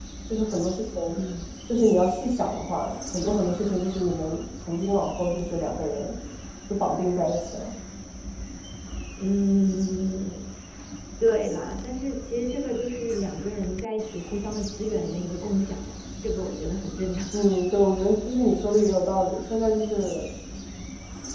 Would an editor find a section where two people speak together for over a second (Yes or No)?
No